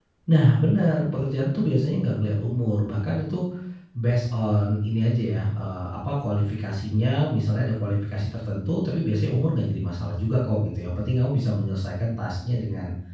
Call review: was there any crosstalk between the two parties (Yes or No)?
No